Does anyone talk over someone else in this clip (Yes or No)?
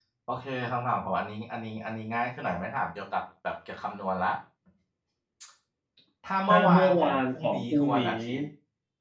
Yes